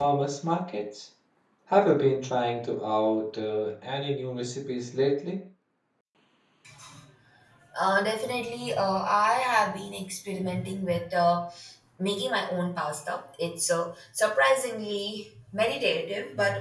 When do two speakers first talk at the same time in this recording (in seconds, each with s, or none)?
none